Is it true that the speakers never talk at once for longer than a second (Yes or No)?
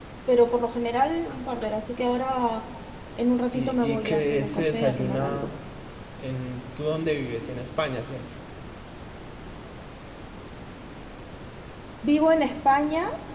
No